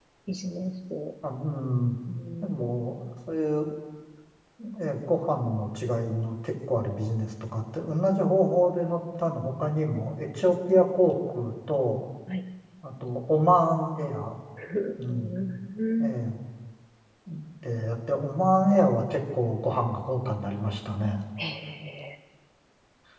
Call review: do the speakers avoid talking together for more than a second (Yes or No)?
Yes